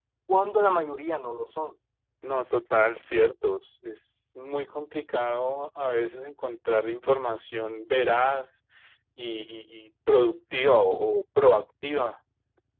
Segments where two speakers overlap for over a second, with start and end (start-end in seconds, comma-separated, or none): none